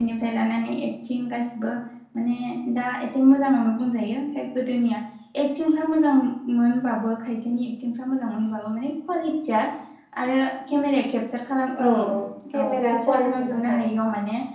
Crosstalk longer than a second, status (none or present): present